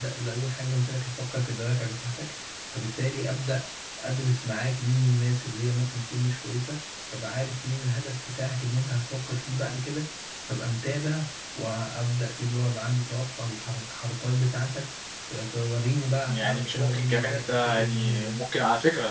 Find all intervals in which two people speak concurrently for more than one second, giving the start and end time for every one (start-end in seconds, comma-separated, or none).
16.3-18.4